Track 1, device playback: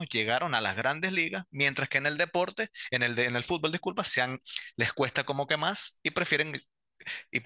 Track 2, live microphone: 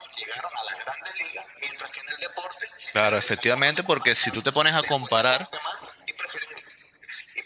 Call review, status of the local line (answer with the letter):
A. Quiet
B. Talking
B